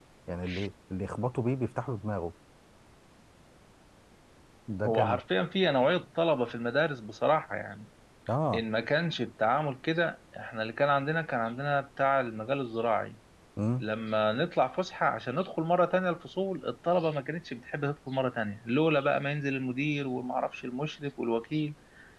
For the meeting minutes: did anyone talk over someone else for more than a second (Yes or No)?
No